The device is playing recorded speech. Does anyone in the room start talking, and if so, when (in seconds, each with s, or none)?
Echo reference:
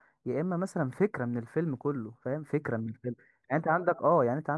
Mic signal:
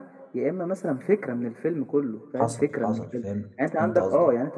2.4 s